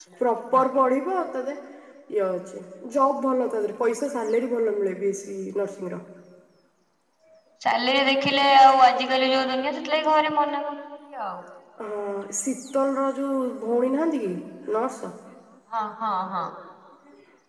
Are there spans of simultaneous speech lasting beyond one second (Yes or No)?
No